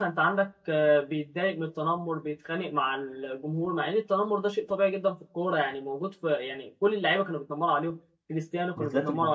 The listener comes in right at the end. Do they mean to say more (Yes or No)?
No